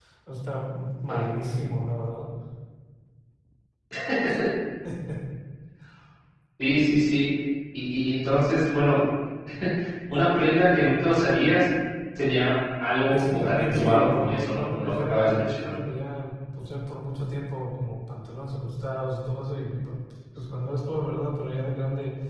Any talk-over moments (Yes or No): Yes